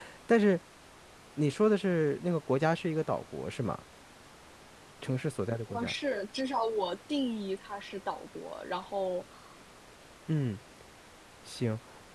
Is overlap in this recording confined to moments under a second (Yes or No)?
Yes